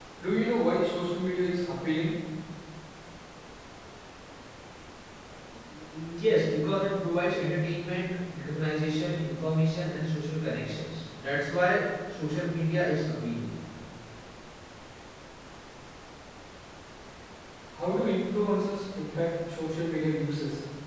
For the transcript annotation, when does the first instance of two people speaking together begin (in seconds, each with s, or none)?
none